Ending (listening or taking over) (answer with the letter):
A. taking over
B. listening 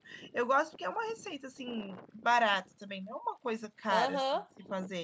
A